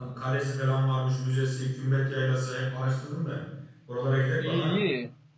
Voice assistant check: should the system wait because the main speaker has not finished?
No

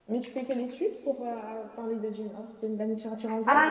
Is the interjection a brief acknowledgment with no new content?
No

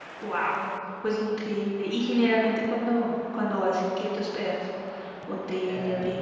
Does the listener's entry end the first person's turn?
Yes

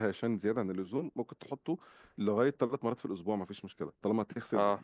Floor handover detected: No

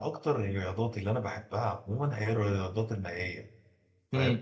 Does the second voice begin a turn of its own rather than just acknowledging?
No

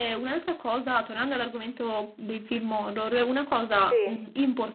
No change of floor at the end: Yes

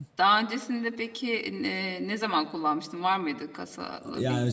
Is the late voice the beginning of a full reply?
Yes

